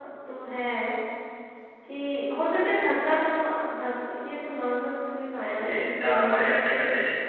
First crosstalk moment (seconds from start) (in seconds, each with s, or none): 5.4 s